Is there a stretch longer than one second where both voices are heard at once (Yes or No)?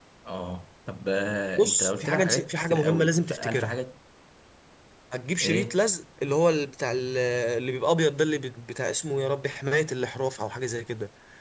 Yes